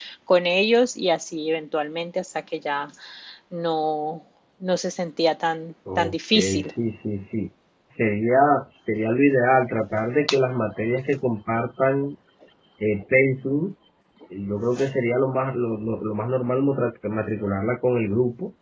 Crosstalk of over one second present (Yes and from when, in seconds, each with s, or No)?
No